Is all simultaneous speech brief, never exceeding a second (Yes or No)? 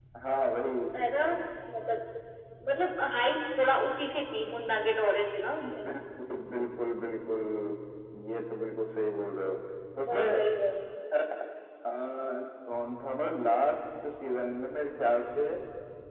Yes